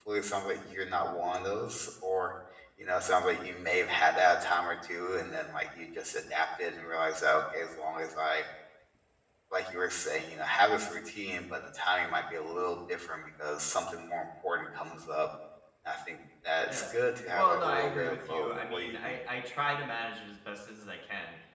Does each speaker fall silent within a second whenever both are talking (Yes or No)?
No